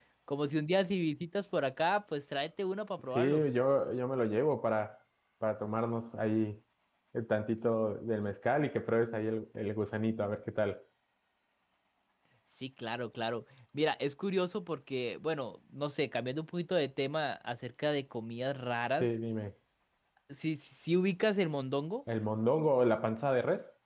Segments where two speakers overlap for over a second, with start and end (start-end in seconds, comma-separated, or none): none